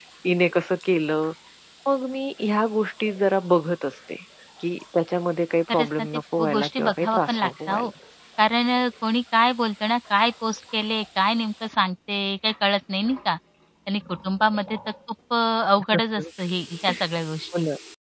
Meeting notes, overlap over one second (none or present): present